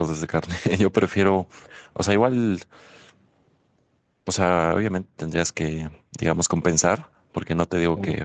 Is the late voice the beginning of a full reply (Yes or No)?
No